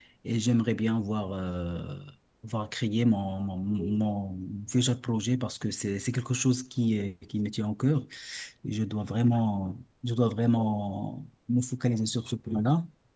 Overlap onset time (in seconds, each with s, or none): none